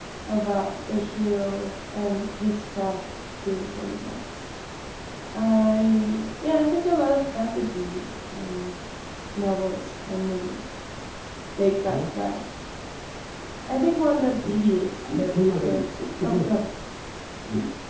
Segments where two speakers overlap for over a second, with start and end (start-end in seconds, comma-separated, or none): 15.3-16.6